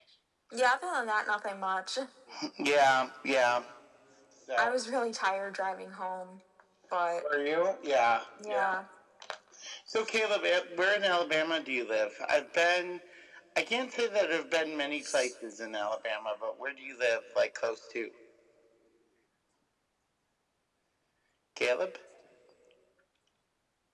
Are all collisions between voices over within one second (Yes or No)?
Yes